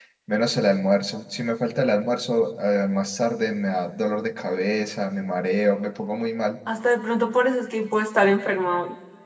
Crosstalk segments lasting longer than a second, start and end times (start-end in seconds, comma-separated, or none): none